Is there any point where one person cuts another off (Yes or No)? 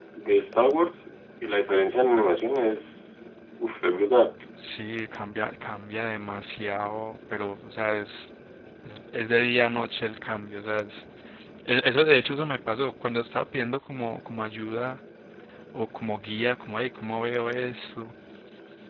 No